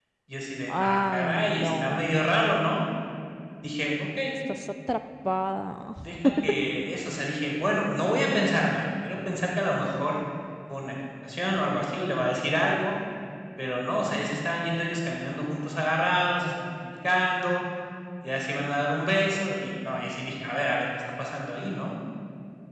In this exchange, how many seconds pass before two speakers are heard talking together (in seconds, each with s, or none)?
0.7 s